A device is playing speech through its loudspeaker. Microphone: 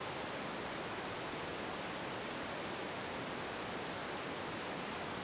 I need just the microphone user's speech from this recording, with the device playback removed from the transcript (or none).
none